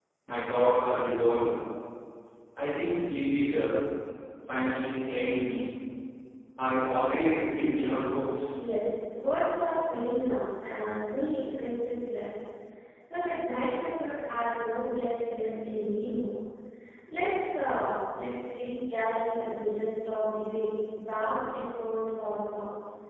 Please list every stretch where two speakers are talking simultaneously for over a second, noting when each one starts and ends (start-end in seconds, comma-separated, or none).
none